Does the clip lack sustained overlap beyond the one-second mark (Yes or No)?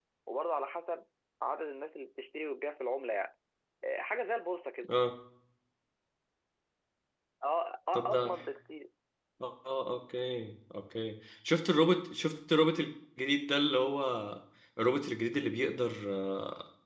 Yes